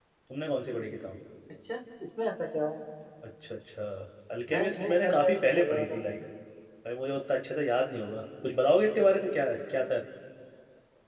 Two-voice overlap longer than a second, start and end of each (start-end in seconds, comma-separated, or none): 4.5-6.0